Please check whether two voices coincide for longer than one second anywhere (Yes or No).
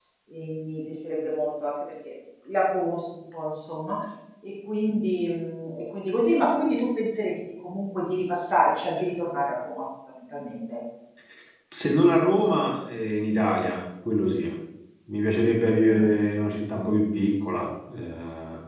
No